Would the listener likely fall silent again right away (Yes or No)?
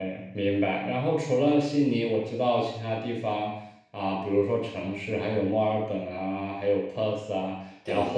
Yes